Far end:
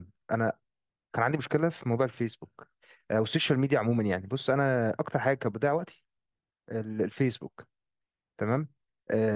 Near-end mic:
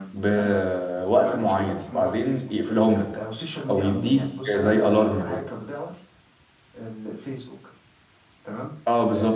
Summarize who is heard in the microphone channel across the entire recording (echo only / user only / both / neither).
both